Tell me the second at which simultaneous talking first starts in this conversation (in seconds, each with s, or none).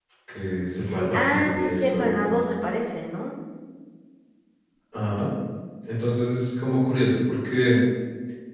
1.1 s